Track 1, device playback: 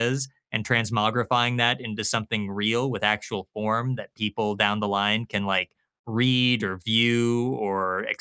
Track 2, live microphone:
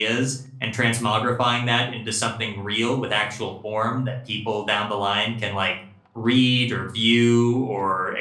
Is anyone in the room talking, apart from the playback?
No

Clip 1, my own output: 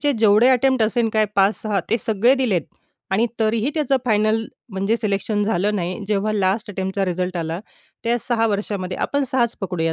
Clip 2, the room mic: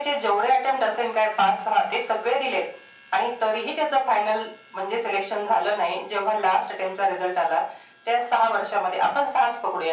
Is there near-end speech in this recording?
No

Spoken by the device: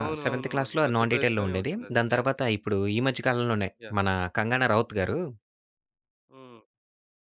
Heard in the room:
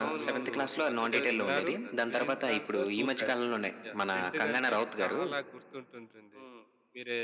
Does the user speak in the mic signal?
Yes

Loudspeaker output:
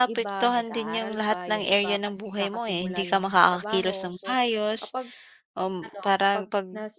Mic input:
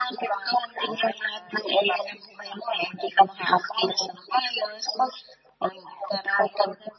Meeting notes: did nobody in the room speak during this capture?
Yes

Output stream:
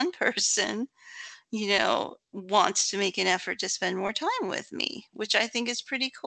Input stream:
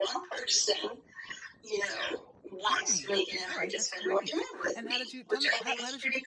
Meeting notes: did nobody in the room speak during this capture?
No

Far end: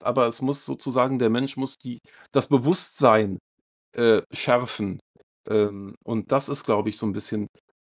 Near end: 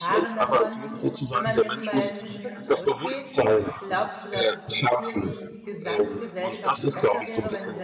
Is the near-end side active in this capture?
Yes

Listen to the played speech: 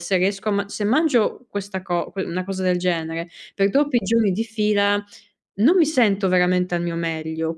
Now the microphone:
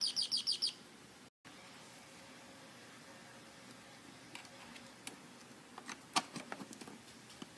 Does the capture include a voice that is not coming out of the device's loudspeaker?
No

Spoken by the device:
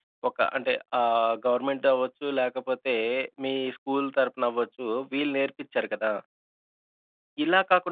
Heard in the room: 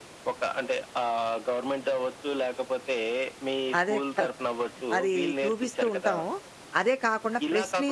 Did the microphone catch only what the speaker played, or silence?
No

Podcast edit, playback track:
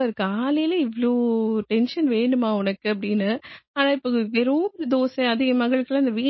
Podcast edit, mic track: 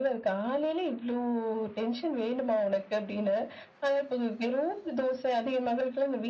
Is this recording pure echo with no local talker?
Yes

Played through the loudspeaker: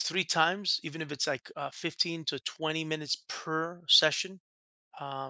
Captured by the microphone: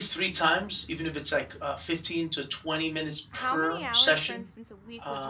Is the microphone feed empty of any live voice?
No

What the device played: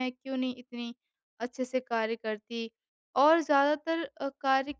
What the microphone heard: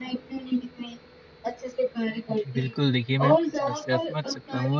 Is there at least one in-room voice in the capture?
Yes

